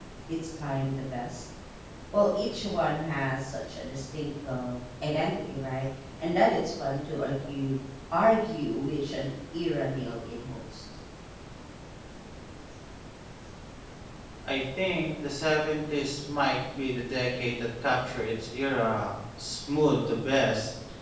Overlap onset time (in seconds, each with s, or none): none